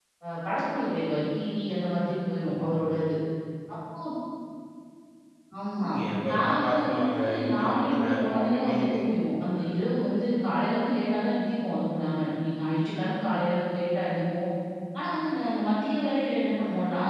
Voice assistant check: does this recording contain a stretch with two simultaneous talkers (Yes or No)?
Yes